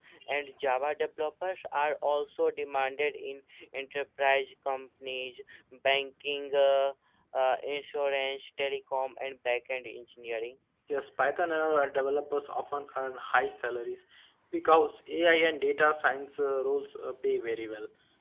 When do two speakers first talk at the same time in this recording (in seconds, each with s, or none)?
none